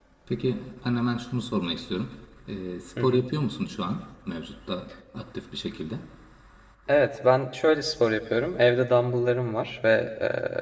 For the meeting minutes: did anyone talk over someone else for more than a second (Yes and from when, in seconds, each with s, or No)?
No